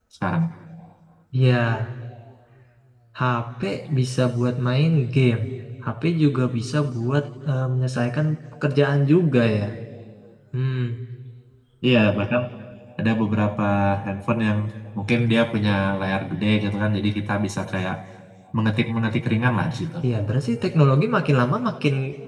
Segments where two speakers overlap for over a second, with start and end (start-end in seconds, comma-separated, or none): none